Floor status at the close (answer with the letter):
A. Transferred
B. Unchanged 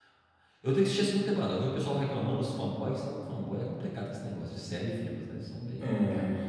A